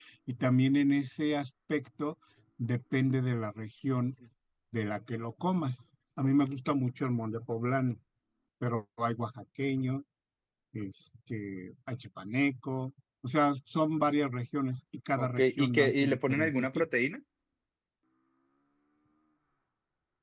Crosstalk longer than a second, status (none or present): present